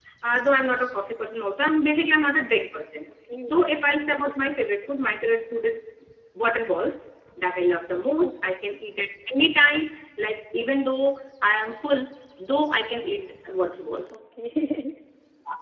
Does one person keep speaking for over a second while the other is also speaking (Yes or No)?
No